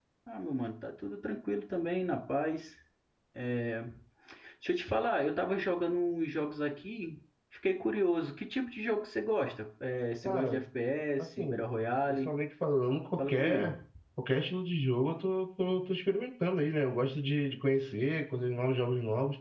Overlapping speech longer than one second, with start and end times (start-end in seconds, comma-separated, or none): none